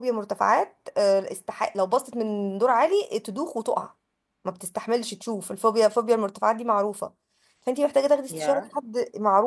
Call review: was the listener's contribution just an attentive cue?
Yes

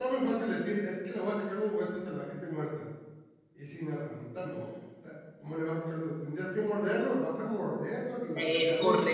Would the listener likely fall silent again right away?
No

